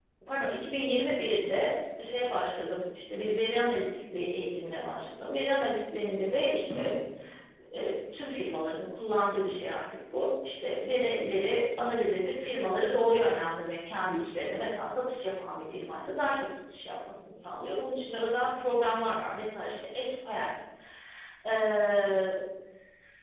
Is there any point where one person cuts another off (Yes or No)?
No